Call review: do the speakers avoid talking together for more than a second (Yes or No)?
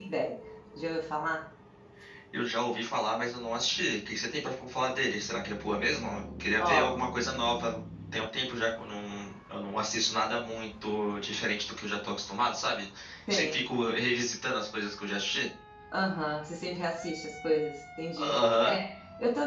Yes